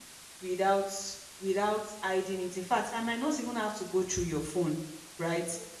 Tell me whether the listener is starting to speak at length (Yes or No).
No